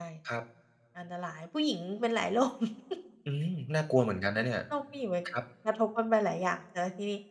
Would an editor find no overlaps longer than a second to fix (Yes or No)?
Yes